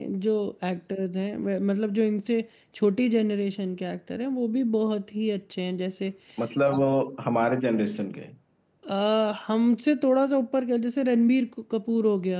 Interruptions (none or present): none